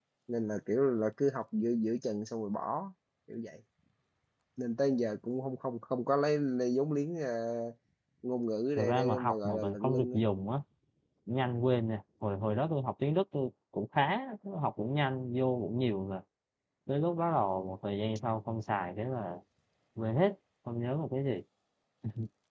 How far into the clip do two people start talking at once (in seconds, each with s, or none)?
8.8 s